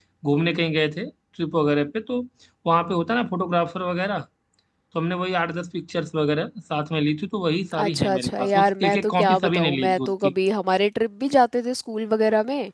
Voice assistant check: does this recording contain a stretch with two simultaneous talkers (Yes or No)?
Yes